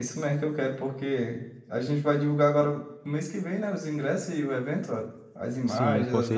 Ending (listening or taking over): taking over